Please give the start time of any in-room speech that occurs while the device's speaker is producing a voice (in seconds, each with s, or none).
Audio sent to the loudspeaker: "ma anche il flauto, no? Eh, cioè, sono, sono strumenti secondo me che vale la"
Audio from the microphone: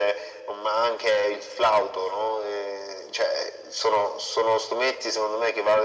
none